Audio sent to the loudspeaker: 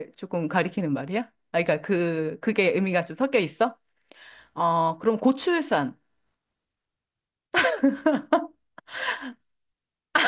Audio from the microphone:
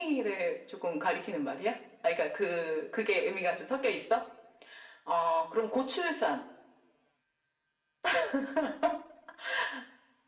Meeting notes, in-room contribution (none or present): none